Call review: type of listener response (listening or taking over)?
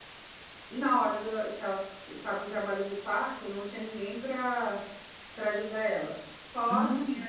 listening